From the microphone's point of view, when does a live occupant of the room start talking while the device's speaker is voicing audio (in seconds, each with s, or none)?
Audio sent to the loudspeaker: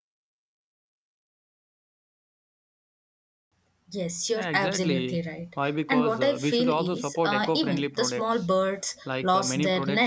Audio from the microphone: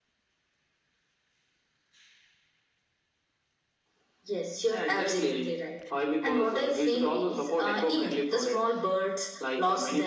none